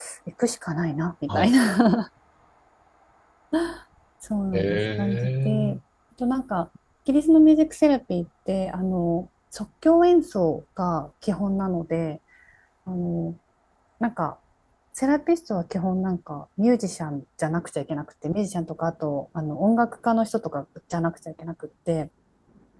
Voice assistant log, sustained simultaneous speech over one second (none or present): present